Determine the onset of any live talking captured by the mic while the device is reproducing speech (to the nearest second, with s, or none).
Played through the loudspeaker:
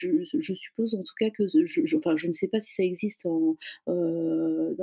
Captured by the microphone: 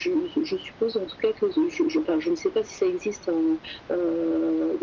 none